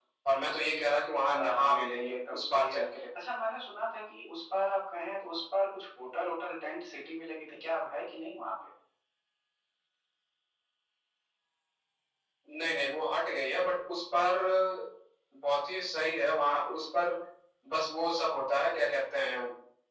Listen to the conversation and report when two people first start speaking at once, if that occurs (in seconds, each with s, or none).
1.3 s